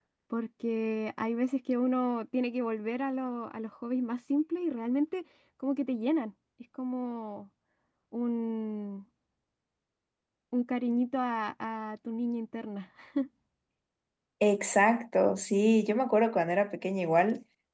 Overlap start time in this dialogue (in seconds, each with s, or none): none